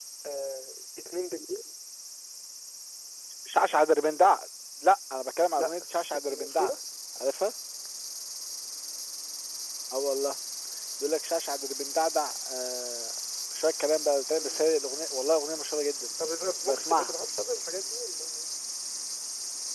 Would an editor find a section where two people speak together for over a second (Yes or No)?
No